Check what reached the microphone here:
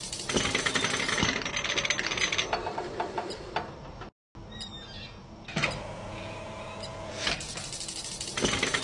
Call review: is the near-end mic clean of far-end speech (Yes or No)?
Yes